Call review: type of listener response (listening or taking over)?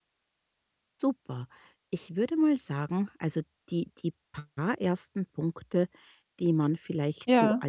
listening